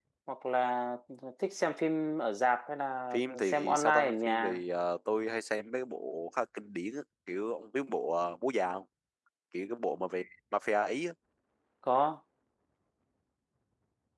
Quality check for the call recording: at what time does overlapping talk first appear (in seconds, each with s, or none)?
3.1 s